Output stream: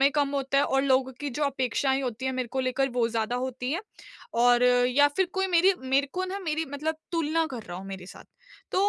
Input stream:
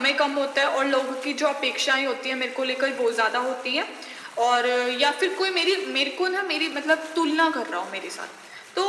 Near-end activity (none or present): none